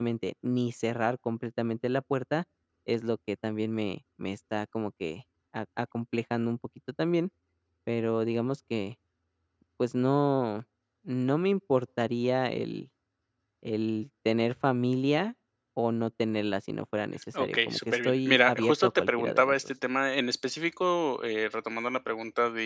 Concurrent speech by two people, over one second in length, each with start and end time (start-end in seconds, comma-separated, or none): 17.4-19.6